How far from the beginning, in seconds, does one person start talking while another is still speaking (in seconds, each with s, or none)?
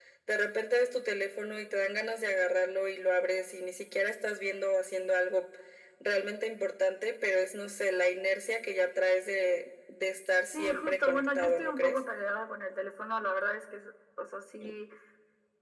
10.5 s